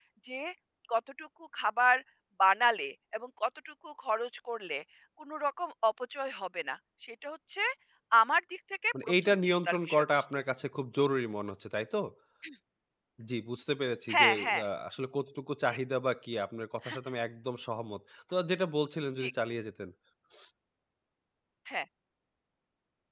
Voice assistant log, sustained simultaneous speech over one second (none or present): present